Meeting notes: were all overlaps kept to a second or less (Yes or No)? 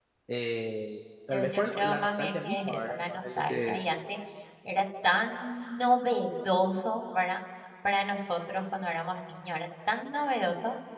No